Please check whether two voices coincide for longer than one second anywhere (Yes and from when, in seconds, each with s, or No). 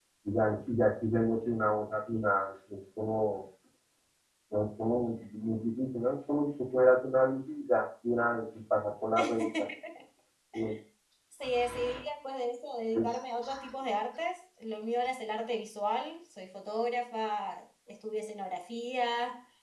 No